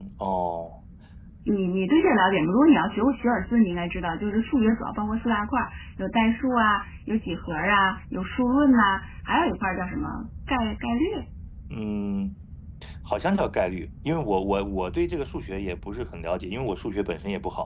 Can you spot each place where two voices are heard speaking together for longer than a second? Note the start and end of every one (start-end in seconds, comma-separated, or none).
none